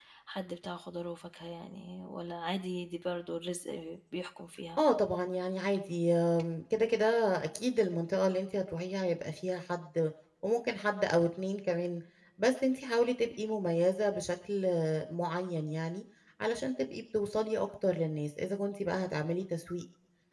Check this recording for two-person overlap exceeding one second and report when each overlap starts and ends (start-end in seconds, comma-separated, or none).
none